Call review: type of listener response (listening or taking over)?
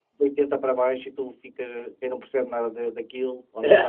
listening